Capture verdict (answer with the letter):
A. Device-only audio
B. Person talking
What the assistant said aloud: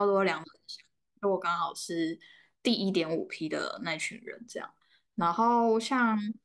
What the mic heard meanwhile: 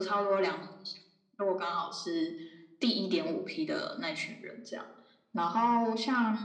A